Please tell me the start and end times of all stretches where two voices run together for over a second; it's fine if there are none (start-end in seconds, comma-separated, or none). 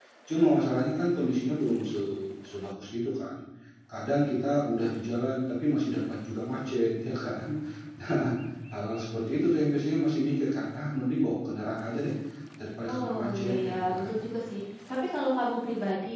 12.9-14.2